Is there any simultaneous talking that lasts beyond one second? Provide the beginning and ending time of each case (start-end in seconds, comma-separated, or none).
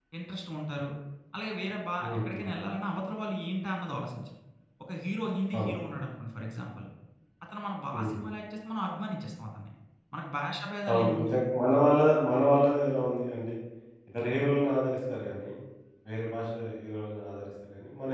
none